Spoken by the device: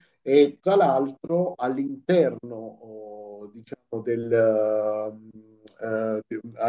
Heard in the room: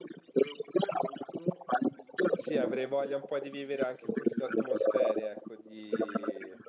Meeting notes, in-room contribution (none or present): present